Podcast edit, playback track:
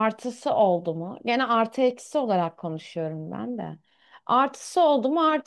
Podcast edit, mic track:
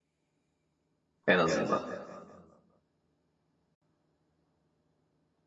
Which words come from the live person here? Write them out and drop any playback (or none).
en azından.